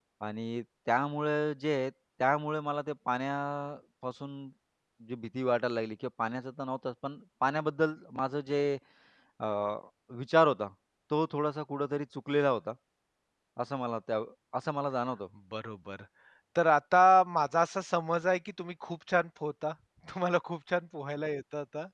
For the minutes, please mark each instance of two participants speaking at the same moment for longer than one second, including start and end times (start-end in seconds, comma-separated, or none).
none